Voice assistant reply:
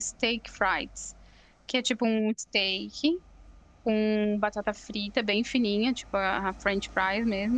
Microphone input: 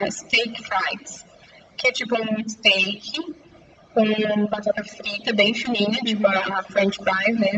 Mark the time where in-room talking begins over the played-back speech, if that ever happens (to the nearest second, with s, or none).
6 s